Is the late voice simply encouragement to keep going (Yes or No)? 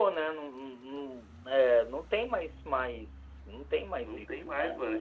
No